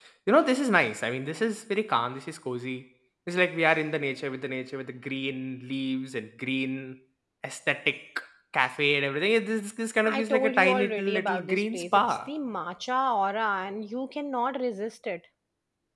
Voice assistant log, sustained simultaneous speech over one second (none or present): present